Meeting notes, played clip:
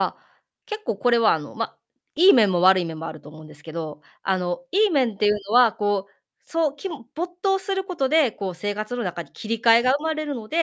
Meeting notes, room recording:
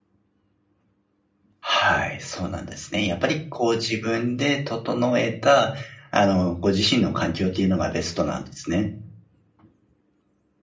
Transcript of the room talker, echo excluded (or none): はい、そうなんですね。やっぱりこう自分で整えた、あの、ご自身の環境ってゆうのがベストなんですね。